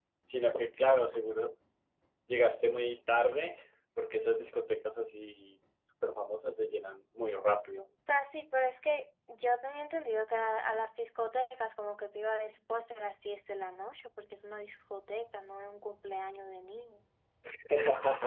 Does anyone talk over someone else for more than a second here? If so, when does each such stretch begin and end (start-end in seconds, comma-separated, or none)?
none